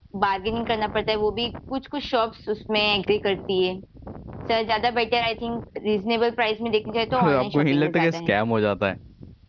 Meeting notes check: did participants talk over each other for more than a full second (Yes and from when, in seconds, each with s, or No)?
Yes, from 7.1 s